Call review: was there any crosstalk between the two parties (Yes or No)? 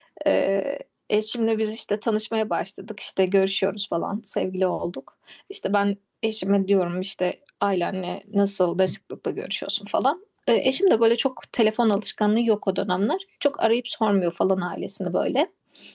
No